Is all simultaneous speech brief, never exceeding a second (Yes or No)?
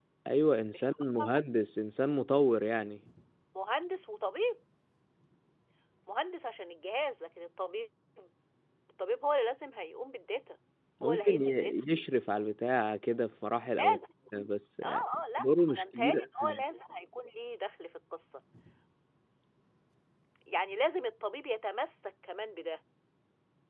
No